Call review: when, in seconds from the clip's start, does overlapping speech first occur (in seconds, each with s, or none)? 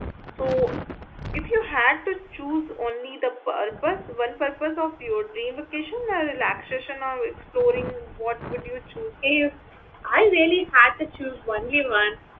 none